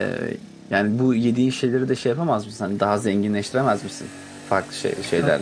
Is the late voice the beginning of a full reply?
Yes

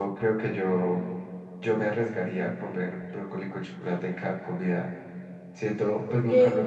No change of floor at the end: Yes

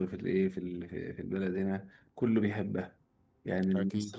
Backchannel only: Yes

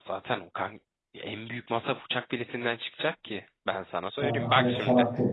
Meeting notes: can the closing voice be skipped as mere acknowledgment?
No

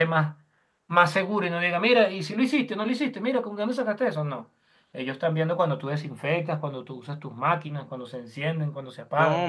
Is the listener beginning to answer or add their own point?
Yes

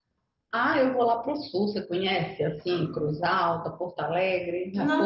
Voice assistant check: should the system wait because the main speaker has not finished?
No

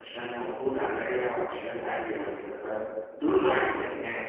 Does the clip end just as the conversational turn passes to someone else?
No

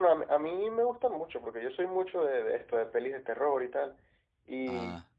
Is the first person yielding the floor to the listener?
No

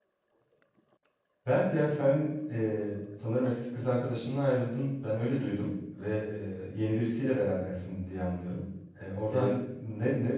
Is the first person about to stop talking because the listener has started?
No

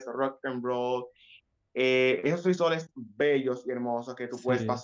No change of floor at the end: Yes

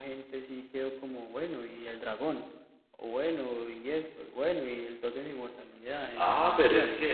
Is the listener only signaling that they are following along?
No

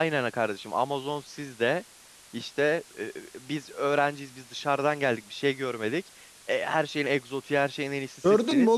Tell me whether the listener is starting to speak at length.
Yes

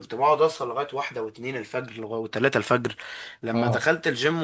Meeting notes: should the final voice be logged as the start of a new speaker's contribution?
No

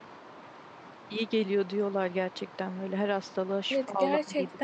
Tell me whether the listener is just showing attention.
No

